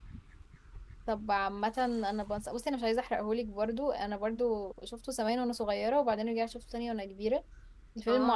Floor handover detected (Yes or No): Yes